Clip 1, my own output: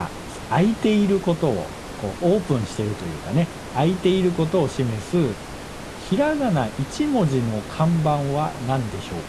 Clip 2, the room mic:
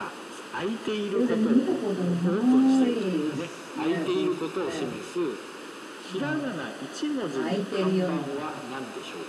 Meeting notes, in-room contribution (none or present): present